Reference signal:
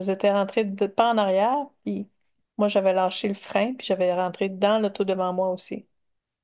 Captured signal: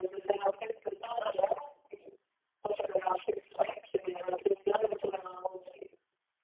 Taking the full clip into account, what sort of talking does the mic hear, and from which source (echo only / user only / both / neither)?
echo only